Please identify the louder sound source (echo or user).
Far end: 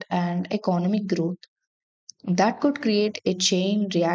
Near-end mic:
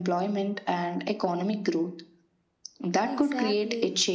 echo